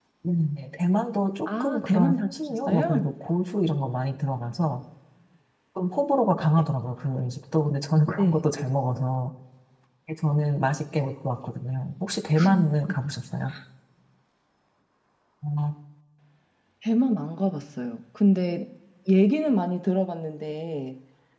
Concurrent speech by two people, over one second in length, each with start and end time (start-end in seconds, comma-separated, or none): 1.6-3.1